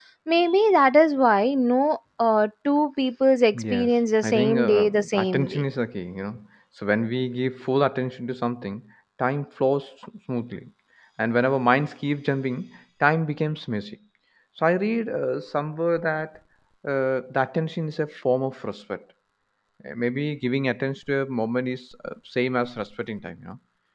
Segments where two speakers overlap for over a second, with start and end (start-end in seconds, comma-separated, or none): 3.5-5.6